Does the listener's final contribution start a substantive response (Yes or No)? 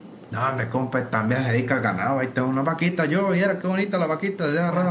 Yes